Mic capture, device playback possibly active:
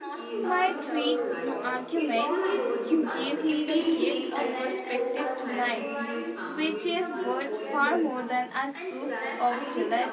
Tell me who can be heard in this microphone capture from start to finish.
both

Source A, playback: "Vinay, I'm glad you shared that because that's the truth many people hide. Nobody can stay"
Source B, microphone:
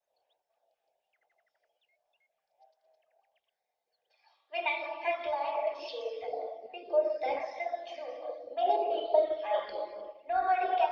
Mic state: echo only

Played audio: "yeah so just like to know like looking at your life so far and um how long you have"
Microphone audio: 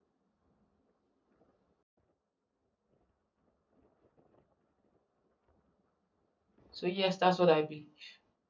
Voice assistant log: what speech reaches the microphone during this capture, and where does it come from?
user only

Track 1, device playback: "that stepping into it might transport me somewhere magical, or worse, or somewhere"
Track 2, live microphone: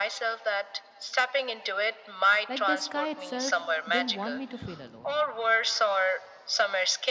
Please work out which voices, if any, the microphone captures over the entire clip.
both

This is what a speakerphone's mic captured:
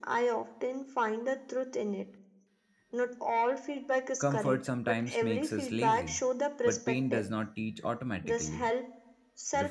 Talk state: both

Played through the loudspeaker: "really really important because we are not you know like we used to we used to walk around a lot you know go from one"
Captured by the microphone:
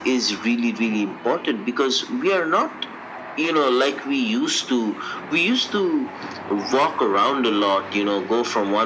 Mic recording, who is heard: echo only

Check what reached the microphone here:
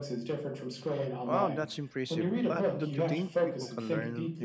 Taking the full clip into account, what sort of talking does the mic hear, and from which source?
both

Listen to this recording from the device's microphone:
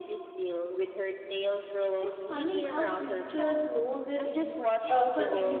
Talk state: both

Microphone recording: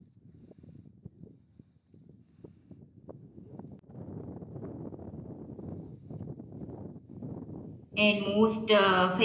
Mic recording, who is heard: user only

